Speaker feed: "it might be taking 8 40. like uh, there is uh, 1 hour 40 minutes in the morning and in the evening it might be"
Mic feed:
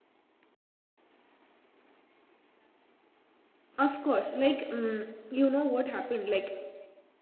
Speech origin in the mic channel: user only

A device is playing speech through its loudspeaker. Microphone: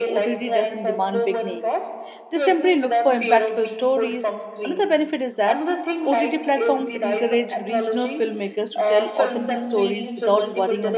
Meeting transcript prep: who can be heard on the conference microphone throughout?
both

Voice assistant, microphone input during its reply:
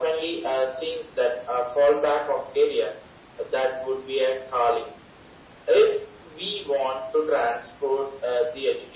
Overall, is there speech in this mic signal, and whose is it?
echo only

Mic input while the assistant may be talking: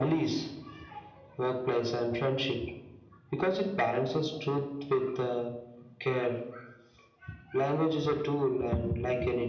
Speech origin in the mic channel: echo only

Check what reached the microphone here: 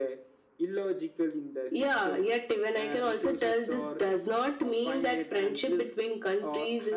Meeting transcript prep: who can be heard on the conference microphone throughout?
echo only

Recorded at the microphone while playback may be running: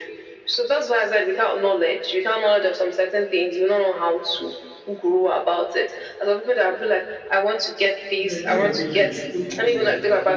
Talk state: both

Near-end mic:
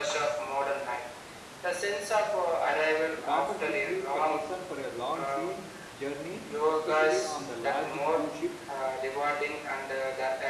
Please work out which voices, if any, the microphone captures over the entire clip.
both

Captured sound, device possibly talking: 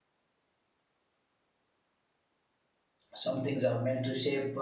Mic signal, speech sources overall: user only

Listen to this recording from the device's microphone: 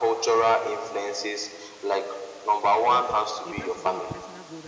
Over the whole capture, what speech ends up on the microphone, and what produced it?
both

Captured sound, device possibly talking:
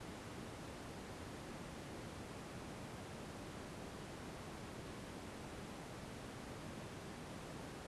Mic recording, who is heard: neither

